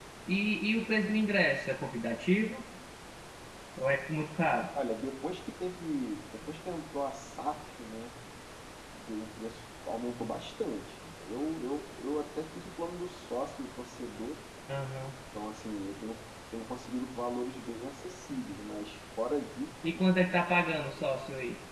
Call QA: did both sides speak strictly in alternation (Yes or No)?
Yes